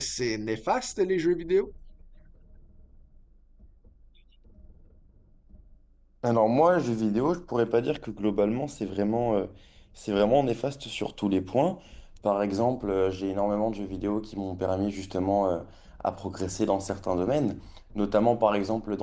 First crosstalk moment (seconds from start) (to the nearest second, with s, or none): none